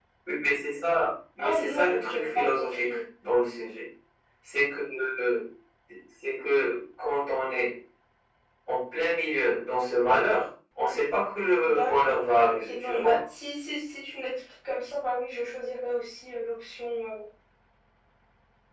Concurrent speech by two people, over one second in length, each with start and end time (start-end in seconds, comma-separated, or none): 1.4-2.9, 11.6-13.2